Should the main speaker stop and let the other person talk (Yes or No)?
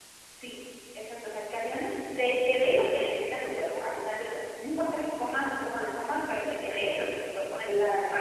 No